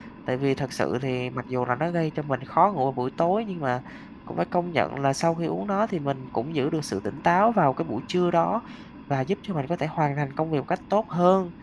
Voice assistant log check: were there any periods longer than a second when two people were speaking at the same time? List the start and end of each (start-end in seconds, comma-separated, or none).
none